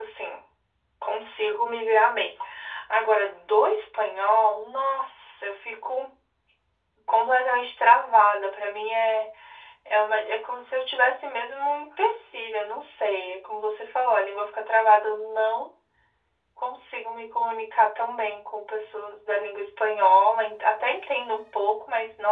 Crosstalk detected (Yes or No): No